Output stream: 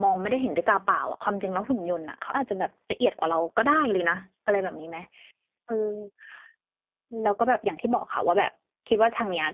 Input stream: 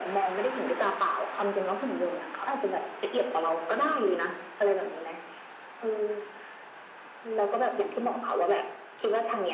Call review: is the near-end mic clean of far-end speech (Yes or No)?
No